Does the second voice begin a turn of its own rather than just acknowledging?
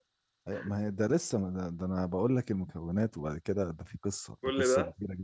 No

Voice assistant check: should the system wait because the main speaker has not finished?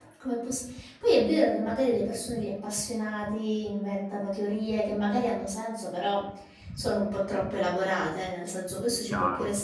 Yes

